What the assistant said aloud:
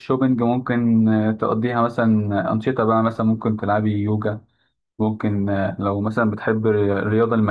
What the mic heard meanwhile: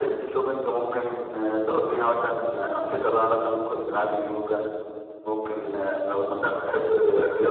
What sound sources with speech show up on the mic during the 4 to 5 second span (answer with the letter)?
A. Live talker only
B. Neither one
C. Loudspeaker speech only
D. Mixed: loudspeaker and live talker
C